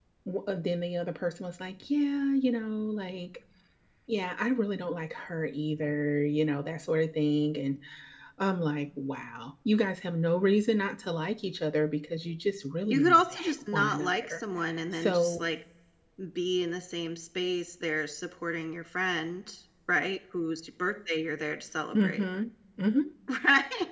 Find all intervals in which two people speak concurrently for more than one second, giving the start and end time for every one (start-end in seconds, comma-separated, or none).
12.9-14.4